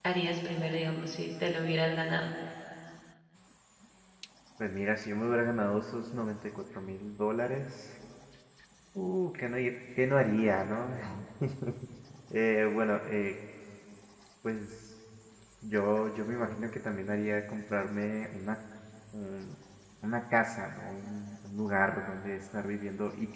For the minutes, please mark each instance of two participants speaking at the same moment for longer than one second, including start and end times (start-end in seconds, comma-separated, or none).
none